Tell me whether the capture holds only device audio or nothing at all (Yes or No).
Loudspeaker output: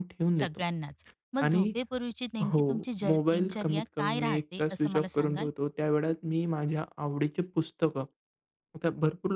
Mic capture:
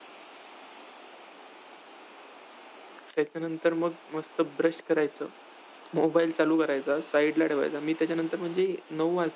No